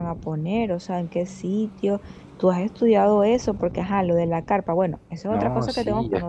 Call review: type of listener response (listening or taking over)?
taking over